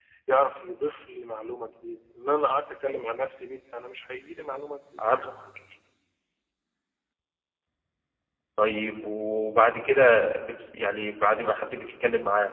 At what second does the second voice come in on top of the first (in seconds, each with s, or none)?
none